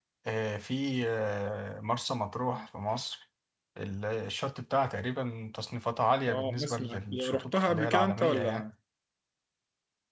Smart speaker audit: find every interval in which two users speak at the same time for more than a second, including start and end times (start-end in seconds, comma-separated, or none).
6.3-8.6